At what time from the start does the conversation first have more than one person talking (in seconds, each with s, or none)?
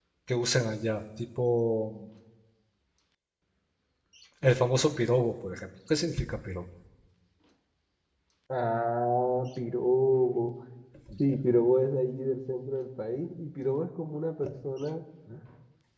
none